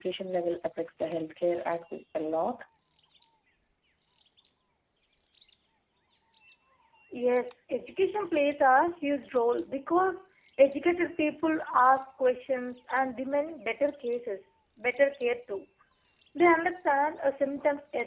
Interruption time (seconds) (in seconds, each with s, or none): none